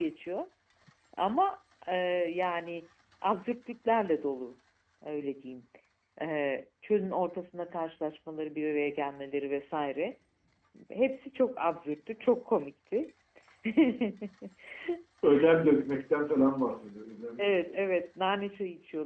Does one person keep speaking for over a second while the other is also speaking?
No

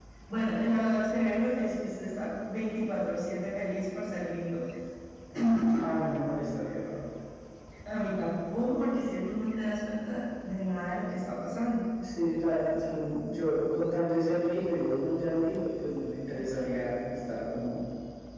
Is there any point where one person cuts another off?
No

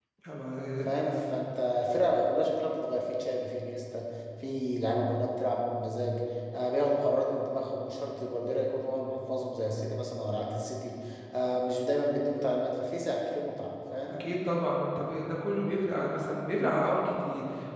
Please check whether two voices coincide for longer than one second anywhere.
No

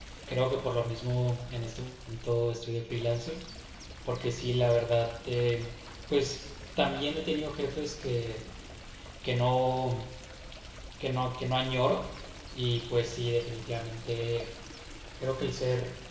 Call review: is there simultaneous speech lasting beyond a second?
No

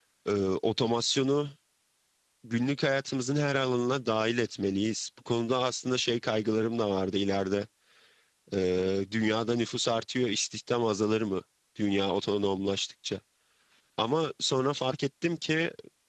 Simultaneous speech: No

